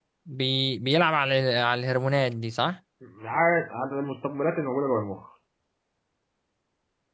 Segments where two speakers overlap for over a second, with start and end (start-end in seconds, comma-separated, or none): none